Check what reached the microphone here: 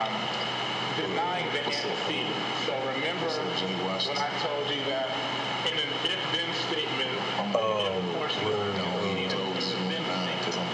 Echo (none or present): present